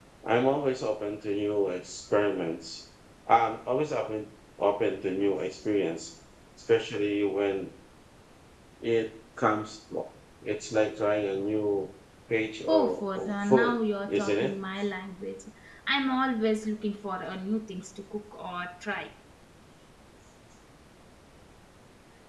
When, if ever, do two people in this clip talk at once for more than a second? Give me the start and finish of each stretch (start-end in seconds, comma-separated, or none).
12.7-14.5